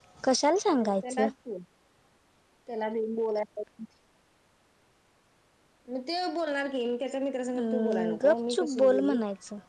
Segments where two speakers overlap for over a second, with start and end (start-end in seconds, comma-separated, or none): 7.6-9.2